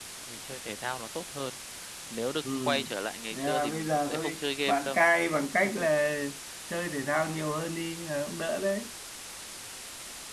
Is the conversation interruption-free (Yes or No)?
No